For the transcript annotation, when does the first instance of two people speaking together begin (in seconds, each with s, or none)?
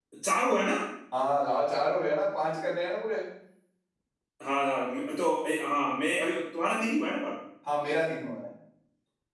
none